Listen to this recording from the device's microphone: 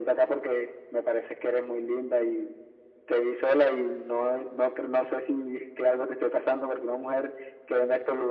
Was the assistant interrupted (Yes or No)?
No